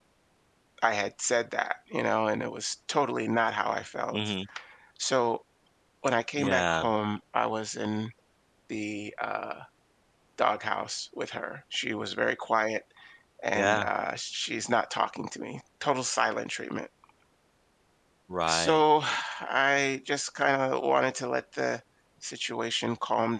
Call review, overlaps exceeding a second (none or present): none